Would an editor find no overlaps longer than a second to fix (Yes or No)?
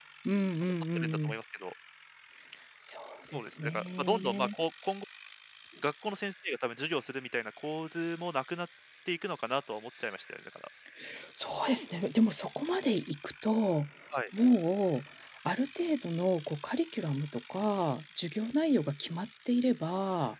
No